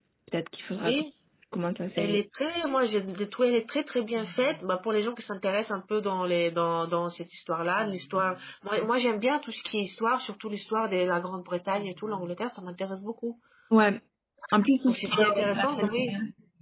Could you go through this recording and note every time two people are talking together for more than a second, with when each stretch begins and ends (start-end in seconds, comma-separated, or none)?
14.9-16.1